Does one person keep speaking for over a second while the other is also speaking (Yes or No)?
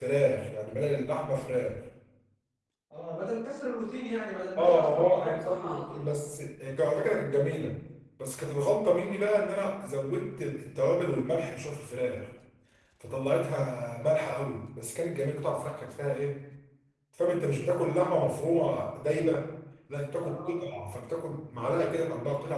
Yes